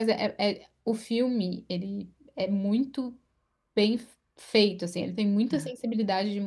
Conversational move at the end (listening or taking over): listening